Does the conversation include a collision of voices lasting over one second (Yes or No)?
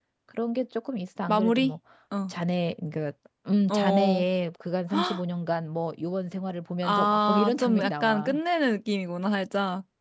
Yes